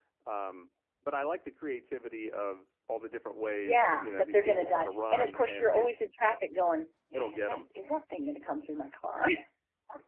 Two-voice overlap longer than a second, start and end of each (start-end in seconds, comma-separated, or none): 3.6-5.9